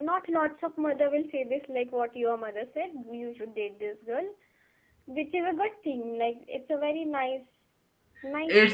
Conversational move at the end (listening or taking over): taking over